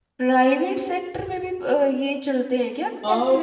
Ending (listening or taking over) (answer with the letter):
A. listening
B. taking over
B